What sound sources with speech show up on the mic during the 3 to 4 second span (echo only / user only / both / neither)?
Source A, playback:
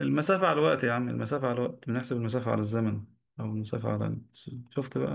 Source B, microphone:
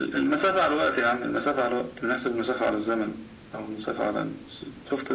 echo only